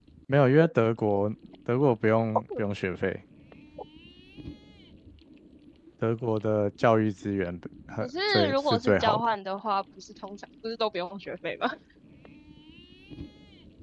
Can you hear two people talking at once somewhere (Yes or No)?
Yes